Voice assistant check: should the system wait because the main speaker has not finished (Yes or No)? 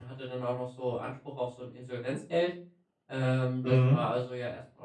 Yes